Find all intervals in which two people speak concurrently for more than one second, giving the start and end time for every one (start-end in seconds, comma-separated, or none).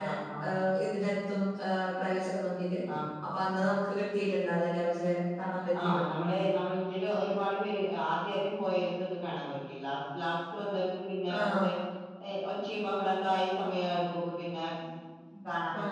none